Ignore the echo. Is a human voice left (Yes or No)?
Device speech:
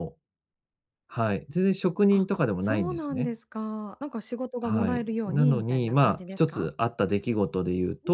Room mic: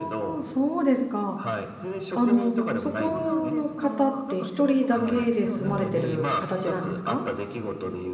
Yes